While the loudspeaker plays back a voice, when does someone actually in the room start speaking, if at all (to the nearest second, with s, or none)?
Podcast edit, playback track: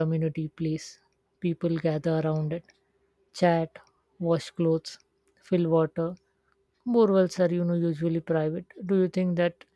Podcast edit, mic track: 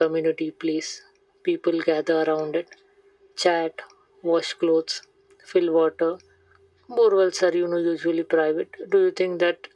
none